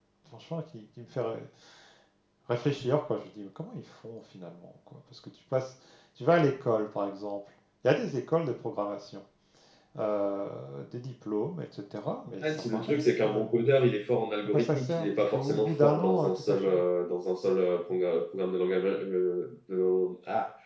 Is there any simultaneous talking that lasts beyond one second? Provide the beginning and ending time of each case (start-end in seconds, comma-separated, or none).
12.4-13.6, 14.4-16.8